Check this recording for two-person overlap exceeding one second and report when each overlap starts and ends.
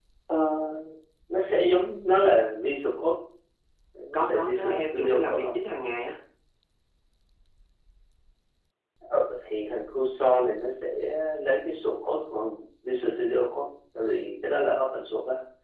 4.1-5.5

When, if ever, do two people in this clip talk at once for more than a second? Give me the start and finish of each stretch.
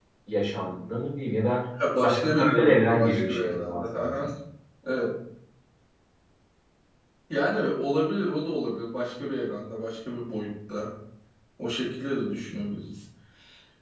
2.0-4.2

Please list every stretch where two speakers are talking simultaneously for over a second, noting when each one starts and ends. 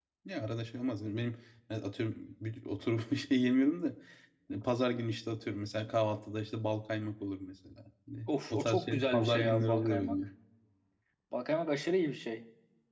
8.3-10.2

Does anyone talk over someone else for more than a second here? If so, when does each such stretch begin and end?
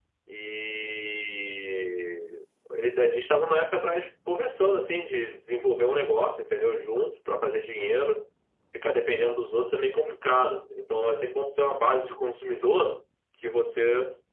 none

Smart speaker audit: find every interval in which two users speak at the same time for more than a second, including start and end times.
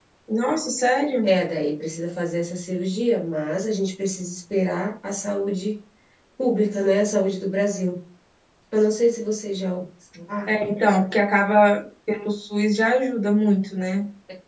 none

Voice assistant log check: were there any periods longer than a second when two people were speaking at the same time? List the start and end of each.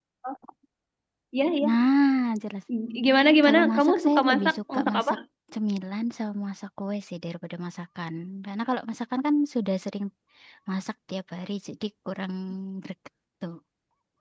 3.4-5.0

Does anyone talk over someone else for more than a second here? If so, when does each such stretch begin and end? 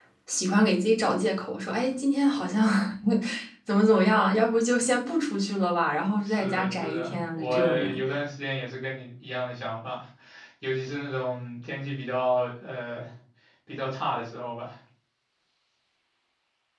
6.2-8.0

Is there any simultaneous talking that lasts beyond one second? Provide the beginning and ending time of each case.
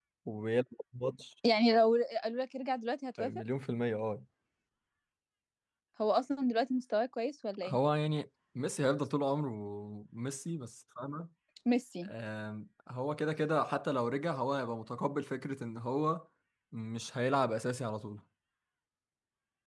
none

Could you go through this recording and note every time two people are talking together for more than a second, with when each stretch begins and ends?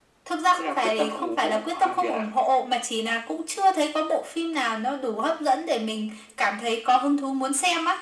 0.6-2.2

